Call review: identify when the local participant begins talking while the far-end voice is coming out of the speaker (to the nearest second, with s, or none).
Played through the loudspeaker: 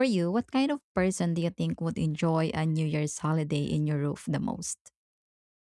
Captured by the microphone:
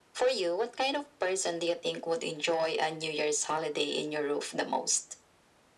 none